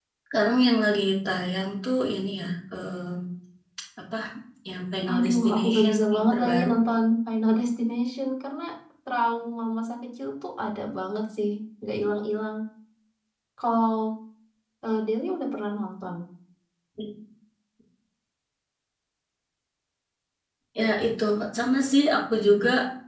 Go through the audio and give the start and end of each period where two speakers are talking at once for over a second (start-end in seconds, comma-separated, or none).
5.1-6.7